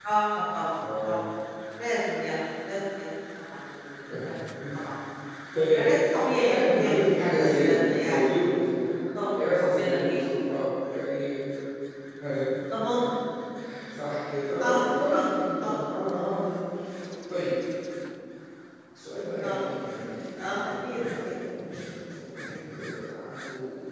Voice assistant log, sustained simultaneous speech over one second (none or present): present